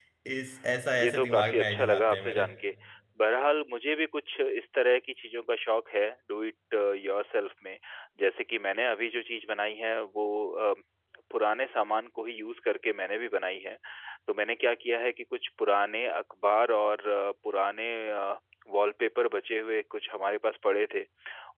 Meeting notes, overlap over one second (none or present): present